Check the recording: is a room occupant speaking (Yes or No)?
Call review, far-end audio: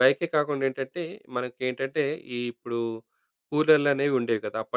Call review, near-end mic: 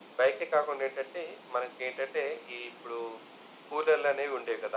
No